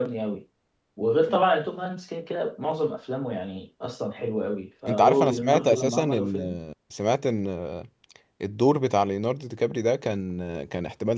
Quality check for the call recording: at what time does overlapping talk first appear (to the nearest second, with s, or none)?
5 s